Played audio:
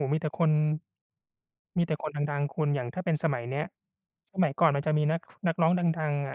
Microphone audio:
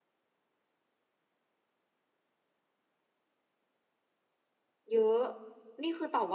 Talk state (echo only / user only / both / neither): user only